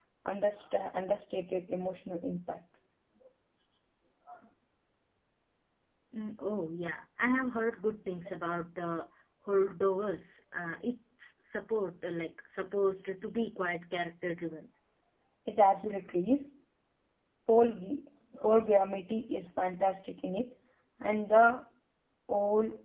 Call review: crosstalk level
none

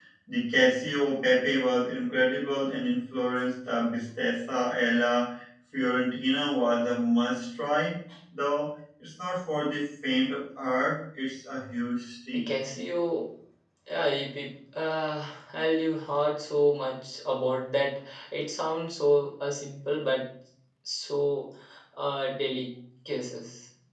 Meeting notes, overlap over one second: none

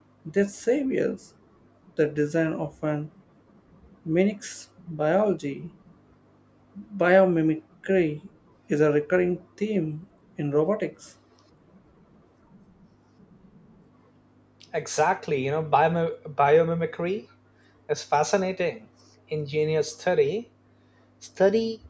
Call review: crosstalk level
none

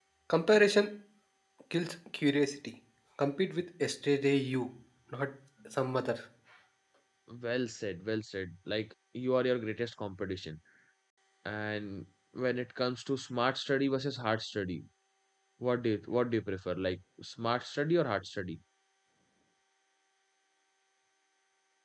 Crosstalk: none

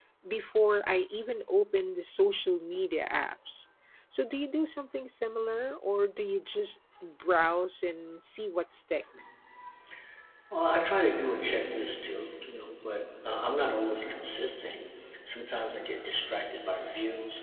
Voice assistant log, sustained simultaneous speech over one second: none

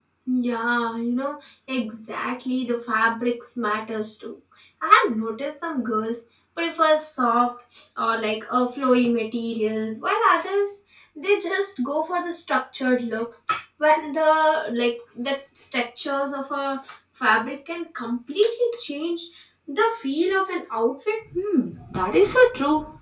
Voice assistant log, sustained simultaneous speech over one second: none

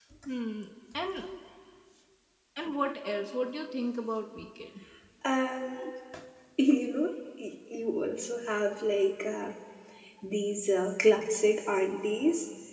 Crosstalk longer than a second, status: none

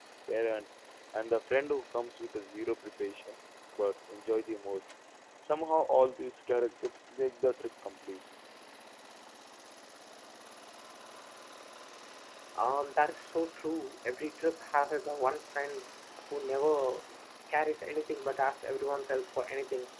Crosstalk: none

